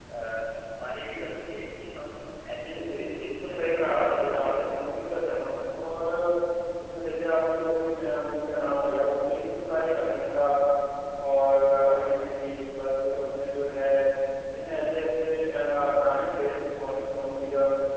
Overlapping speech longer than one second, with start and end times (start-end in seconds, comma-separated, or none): 2.7-4.8